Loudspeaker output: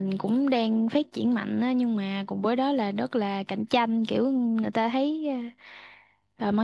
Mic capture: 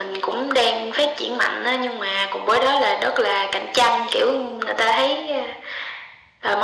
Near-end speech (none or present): none